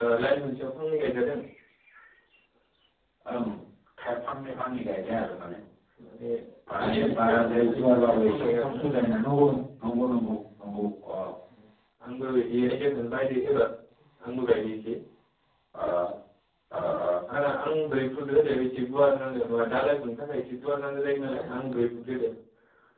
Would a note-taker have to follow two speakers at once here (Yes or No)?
Yes